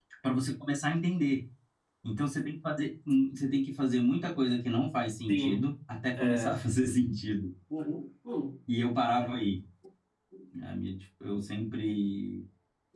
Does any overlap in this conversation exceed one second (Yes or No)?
No